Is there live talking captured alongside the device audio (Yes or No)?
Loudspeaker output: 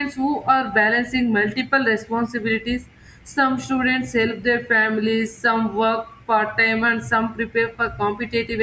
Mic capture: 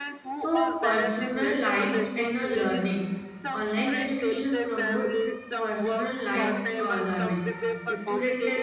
Yes